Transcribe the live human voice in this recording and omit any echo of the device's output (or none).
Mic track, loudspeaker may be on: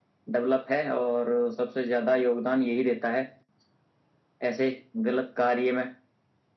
none